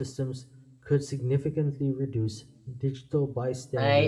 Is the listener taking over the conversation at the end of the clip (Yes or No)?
Yes